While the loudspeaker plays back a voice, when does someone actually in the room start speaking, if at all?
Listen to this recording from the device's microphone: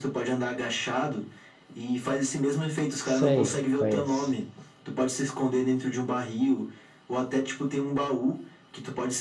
3 s

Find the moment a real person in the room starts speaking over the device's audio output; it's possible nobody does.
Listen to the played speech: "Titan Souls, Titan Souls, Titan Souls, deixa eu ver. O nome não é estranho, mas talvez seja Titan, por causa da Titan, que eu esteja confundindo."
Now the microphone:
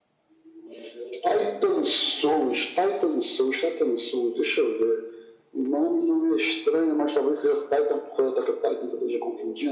none

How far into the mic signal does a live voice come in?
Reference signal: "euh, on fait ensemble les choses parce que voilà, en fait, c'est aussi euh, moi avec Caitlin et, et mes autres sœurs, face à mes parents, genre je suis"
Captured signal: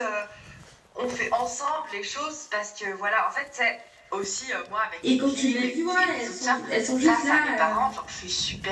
5 s

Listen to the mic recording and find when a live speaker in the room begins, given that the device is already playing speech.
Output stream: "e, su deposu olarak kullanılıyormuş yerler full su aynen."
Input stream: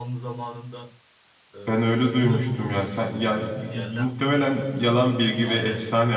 2 s

